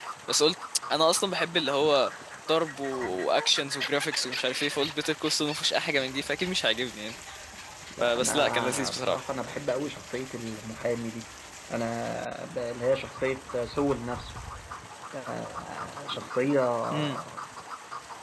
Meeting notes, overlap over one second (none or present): present